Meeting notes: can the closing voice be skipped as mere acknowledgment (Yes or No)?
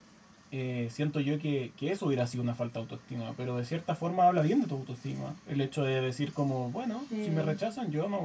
Yes